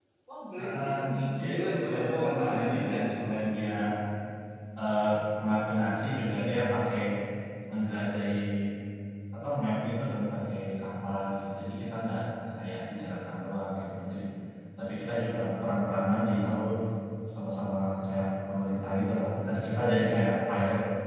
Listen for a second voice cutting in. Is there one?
Yes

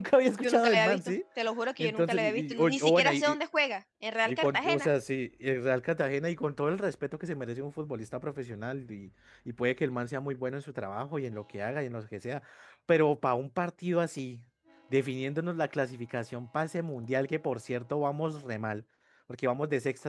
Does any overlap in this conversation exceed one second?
Yes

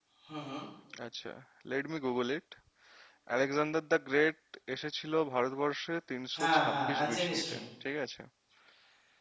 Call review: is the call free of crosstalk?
No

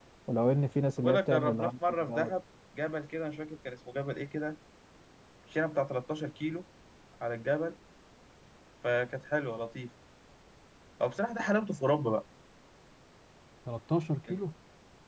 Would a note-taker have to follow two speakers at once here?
Yes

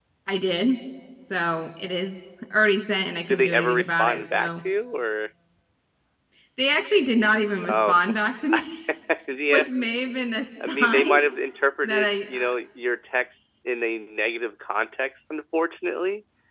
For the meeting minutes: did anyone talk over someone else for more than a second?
Yes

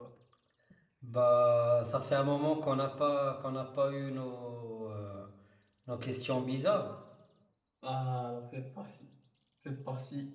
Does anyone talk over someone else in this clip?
No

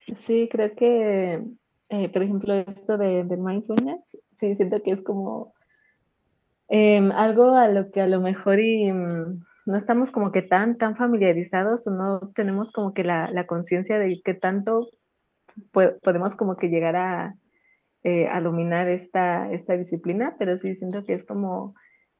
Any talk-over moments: No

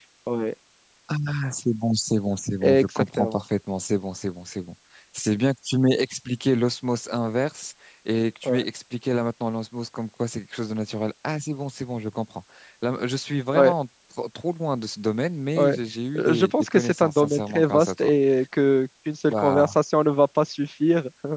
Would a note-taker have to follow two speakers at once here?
Yes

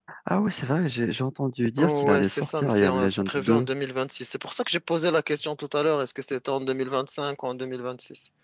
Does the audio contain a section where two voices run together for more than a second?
Yes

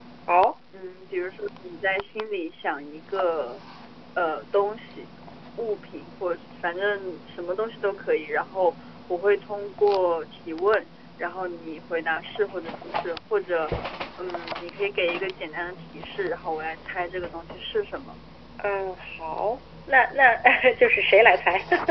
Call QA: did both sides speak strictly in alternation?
Yes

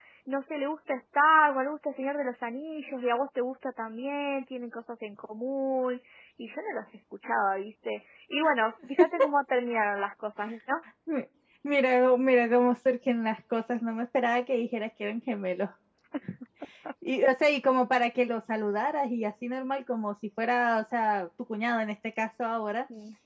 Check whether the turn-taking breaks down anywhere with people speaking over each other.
No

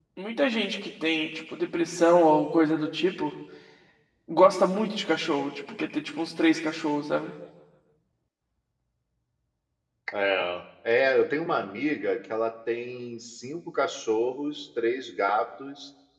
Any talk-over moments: No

